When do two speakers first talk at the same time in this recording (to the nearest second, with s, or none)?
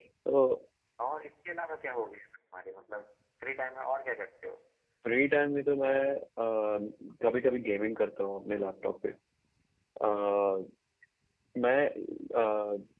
none